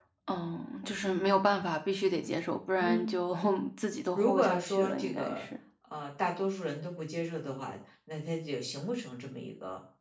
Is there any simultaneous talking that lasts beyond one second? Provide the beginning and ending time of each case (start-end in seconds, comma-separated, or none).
4.1-5.5